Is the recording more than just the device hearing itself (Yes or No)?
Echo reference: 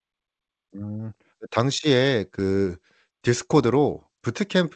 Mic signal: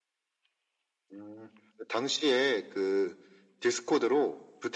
No